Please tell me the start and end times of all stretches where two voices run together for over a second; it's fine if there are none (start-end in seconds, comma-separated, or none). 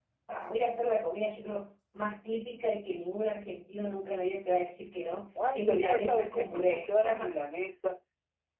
5.5-6.8